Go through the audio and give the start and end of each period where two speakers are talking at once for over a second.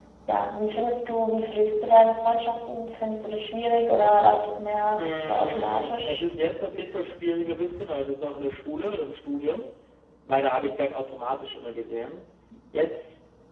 5.0-6.2

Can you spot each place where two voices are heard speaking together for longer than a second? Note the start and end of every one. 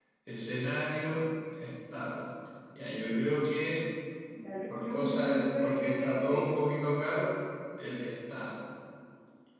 4.7-6.6

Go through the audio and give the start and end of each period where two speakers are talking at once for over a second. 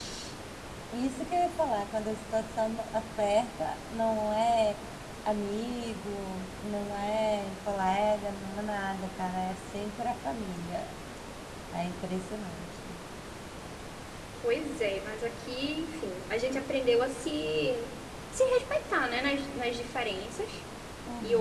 none

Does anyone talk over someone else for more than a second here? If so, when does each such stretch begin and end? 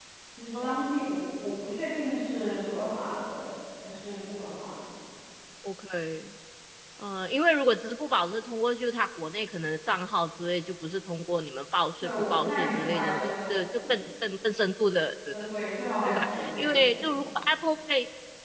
12.0-13.9, 16.1-17.3

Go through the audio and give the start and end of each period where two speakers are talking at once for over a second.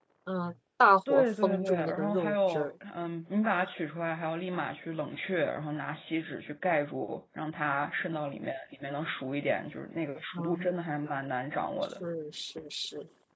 1.1-2.7

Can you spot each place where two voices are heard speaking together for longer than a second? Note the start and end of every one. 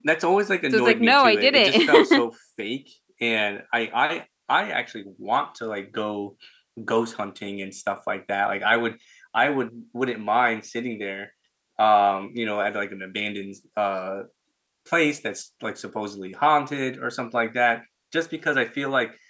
0.7-2.2

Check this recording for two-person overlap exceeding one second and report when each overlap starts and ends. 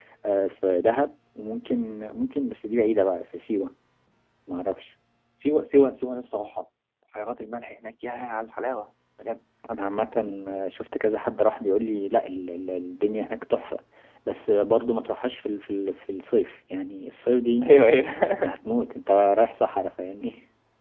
none

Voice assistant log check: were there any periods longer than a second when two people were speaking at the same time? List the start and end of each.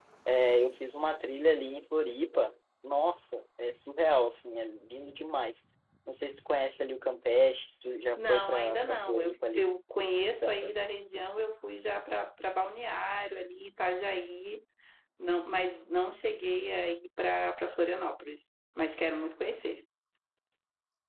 8.2-9.7

